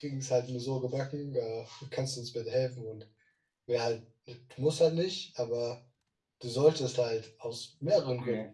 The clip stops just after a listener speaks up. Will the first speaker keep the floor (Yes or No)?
Yes